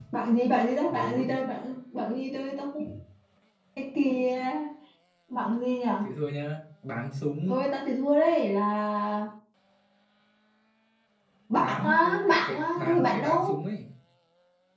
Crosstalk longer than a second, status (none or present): present